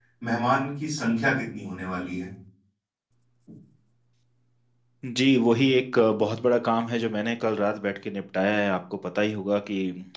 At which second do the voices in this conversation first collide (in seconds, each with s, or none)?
none